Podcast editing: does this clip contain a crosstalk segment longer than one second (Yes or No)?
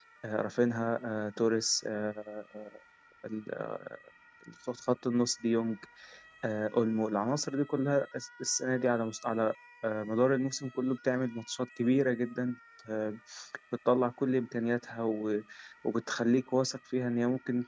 No